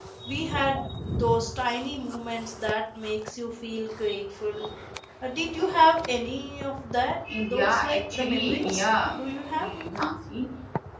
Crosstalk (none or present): present